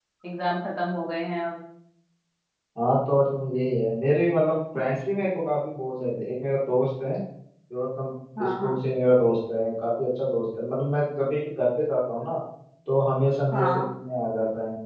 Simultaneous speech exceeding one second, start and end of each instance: none

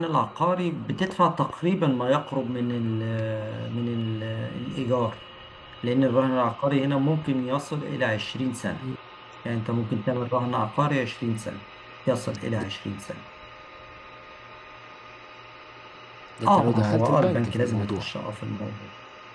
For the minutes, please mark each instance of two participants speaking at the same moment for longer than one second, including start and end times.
16.5-18.1

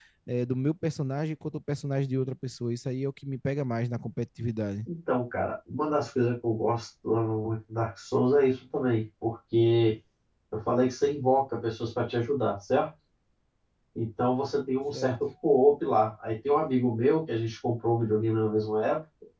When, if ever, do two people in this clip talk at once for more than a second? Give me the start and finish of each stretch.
none

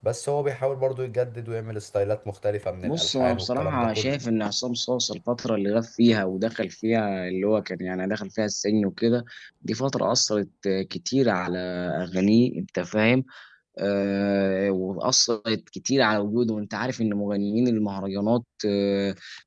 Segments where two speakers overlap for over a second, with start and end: 2.8-4.2

